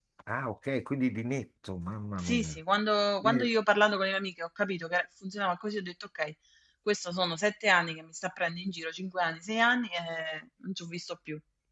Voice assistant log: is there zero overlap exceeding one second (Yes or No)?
Yes